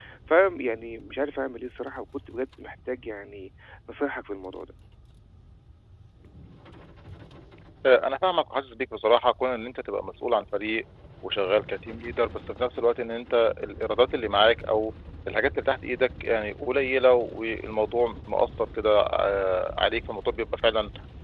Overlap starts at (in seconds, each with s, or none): none